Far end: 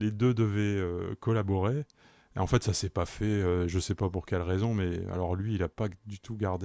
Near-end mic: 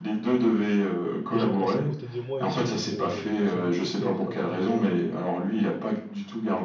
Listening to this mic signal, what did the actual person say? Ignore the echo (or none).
les gens passent à côté de moi et ils se disent, mais, mais c'est un fou qui est en train de conduire là ou quoi.